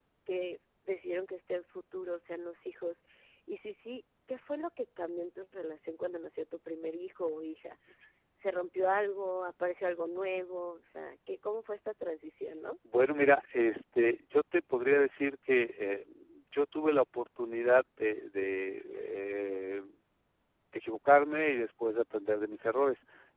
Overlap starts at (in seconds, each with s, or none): none